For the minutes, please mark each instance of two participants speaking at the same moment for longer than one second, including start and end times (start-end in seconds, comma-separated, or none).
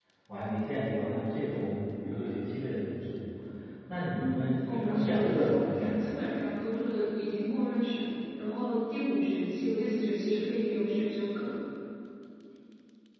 4.1-6.1